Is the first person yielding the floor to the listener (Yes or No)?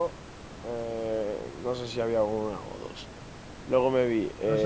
No